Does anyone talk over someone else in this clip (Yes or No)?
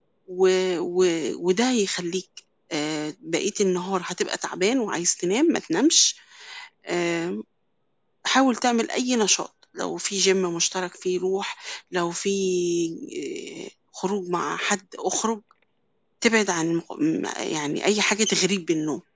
No